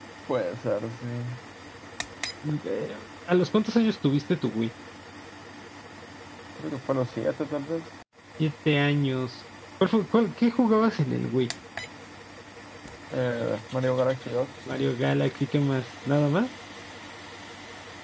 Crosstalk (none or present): none